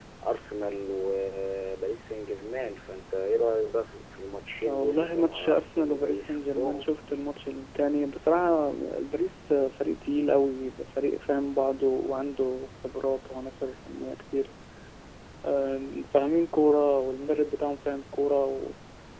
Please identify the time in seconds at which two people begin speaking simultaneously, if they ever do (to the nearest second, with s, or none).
5 s